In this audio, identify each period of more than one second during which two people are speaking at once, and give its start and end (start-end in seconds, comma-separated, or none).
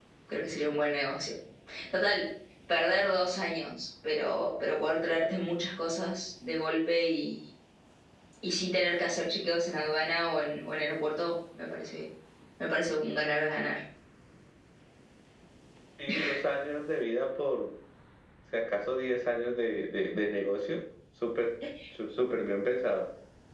none